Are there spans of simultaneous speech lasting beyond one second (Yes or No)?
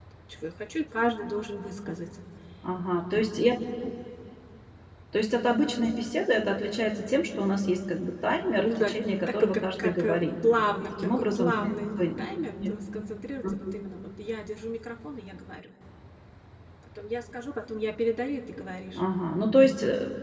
Yes